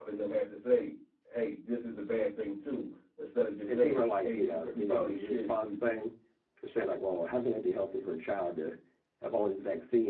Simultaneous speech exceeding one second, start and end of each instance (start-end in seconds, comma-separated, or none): 3.7-6.0